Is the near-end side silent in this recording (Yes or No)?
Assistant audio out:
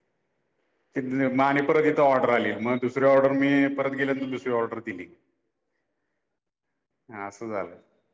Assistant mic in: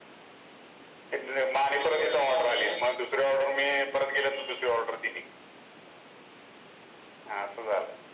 No